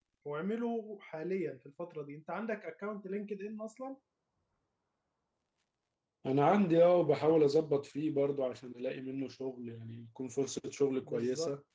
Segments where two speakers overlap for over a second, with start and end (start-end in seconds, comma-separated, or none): none